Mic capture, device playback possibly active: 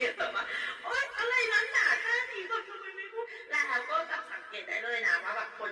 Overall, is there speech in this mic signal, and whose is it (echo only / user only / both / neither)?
echo only